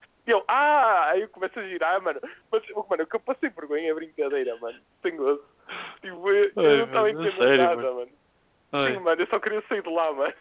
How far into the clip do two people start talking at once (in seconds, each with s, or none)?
6.6 s